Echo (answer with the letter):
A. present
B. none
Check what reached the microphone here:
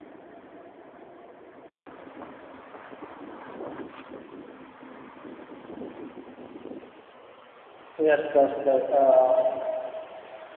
B